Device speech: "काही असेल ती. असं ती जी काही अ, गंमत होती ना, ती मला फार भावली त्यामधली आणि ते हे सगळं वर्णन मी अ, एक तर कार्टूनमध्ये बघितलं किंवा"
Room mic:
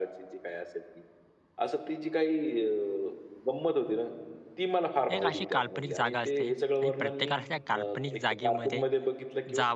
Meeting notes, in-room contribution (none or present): present